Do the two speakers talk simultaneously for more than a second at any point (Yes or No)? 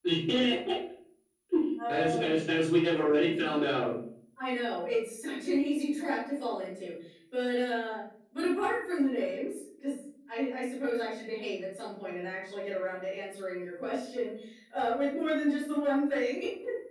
No